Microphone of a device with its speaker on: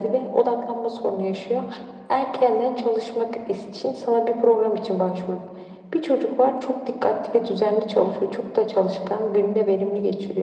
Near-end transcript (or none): none